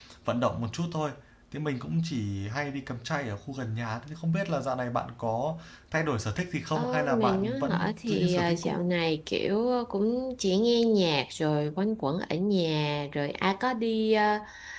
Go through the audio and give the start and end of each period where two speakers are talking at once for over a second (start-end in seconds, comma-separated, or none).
6.8-8.8